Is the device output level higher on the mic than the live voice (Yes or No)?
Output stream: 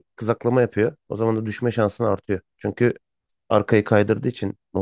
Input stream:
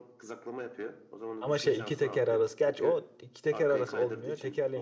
No